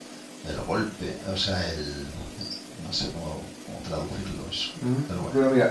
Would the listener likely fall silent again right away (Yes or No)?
No